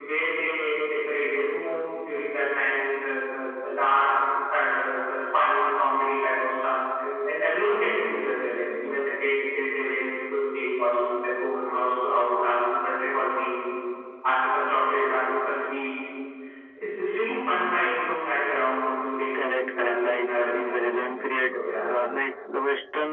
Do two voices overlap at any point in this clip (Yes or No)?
Yes